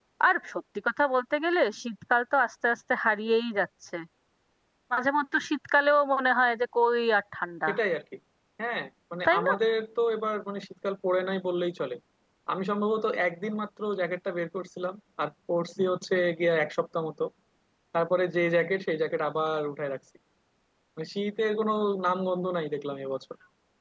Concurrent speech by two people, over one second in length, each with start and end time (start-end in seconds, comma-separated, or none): none